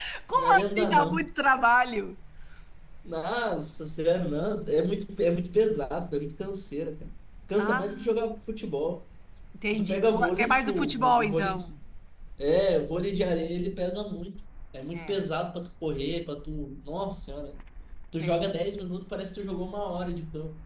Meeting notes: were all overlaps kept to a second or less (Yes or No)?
No